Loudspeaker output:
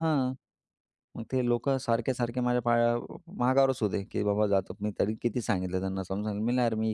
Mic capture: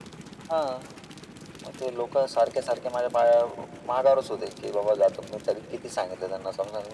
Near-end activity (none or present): none